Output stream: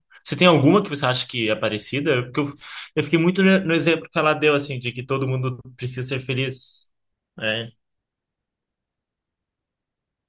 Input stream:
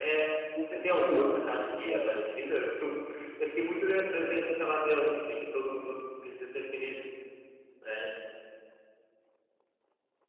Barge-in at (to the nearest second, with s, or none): 1 s